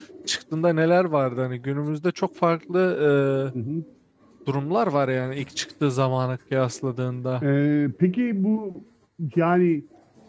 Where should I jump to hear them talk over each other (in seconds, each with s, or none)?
none